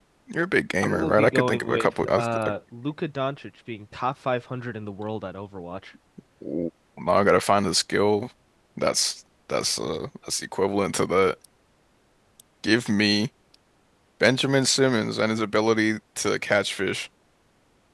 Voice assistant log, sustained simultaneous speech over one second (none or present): present